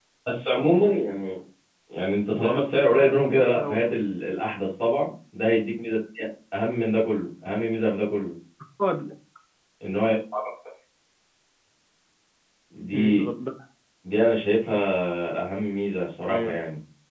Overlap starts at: 2.4 s

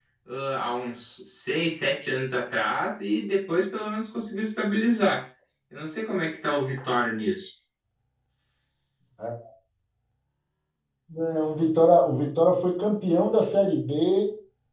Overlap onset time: none

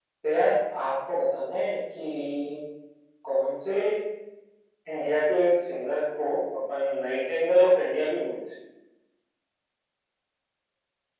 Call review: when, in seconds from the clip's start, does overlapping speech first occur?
none

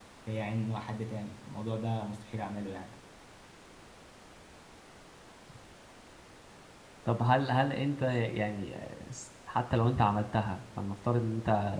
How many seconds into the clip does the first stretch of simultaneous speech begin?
none

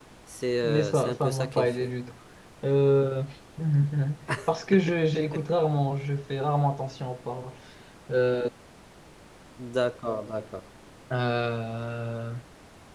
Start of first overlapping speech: 0.6 s

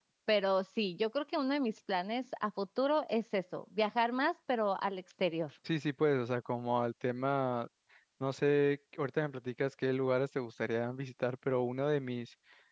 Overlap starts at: none

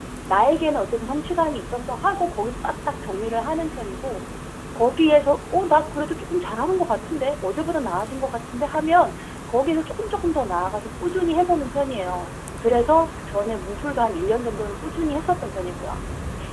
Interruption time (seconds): none

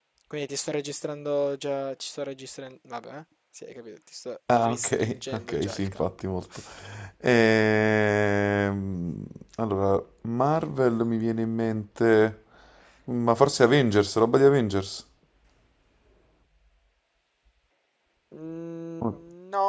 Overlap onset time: 4.5 s

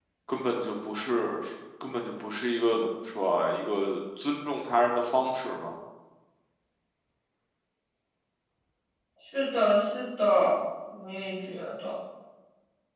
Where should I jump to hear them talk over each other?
none

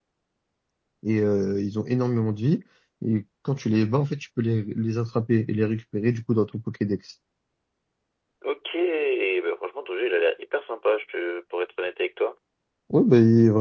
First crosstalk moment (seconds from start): none

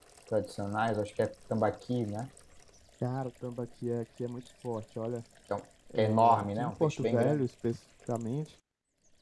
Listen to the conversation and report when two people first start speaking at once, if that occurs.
6.0 s

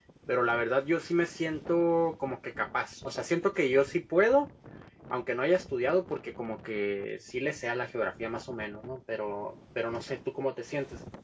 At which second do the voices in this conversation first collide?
none

